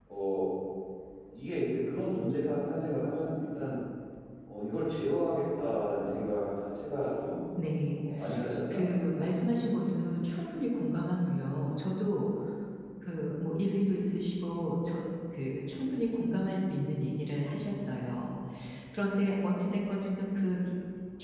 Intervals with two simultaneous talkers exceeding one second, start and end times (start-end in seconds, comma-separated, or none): 8.7-10.1